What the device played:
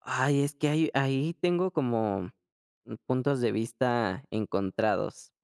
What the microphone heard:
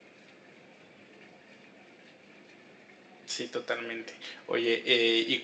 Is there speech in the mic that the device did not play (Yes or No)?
Yes